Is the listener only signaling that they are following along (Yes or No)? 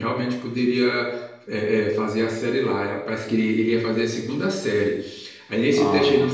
Yes